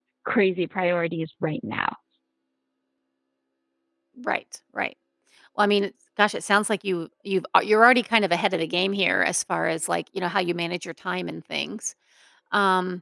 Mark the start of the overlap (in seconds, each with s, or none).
none